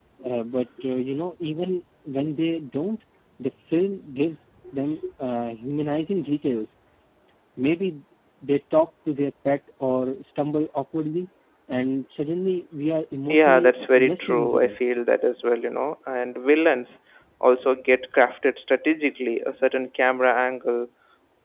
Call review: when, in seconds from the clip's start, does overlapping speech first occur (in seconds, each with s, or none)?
13.3 s